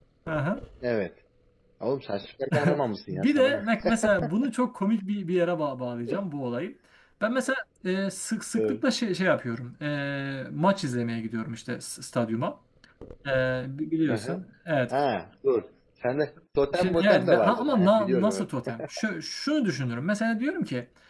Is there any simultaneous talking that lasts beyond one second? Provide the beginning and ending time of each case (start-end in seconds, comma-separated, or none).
16.7-18.8